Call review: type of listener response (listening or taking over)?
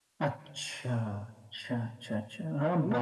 taking over